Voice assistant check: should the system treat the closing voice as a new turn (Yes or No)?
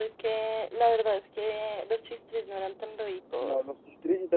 Yes